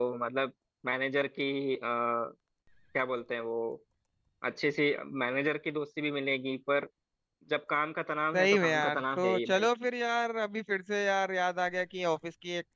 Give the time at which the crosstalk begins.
8.3 s

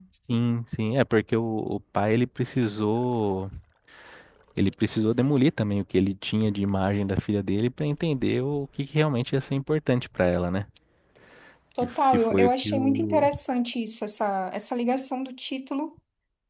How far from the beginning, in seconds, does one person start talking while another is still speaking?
11.8 s

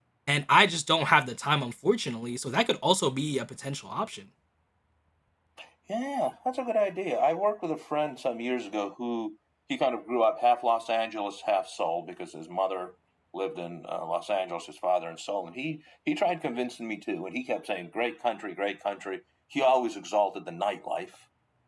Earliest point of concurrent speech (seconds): none

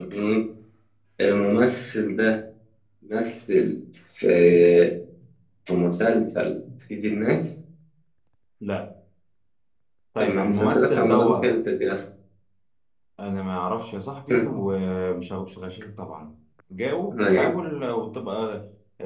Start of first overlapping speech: 10.2 s

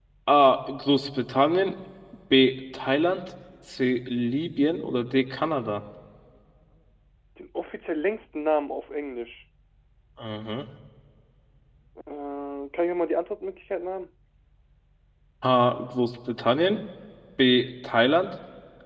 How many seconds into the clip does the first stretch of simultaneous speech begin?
none

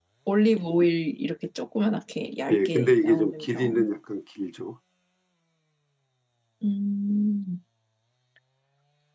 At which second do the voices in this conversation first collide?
2.5 s

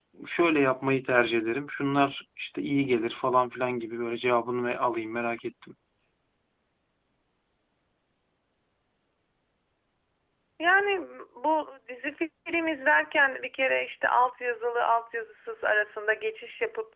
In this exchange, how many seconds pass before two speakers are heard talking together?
none

